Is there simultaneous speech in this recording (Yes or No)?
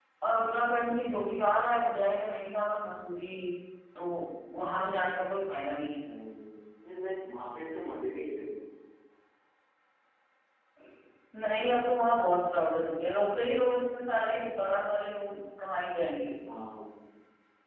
No